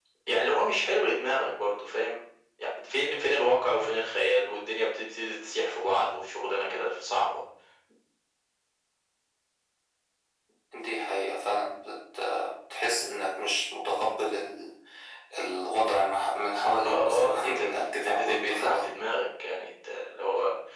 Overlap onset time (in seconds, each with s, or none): 16.8 s